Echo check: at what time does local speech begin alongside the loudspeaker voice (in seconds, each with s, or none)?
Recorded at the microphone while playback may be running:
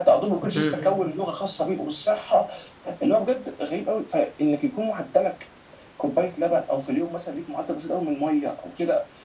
0.4 s